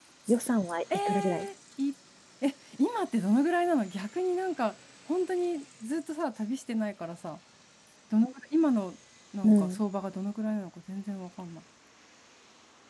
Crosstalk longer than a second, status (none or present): none